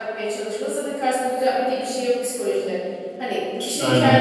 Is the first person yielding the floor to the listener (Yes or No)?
No